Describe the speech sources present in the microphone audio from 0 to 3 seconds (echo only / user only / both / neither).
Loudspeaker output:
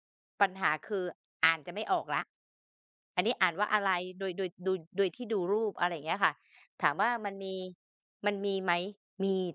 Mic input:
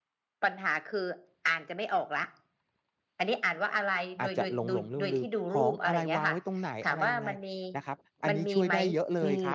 echo only